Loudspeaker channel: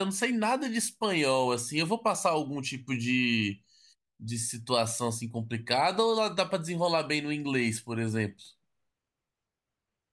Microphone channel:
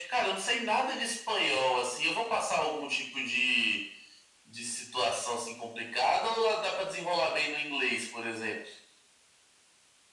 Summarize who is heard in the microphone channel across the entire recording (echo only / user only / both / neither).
echo only